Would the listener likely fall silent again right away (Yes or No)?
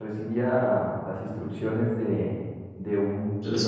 Yes